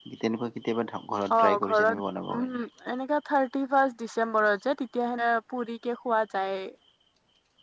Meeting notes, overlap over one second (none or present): present